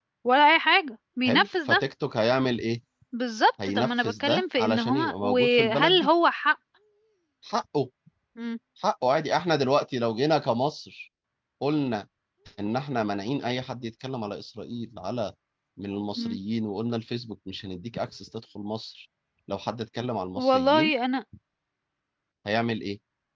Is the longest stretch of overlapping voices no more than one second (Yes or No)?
No